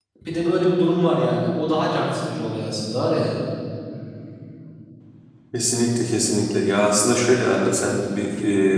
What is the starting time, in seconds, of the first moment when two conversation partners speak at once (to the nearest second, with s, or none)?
none